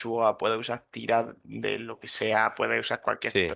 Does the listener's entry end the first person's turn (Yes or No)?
No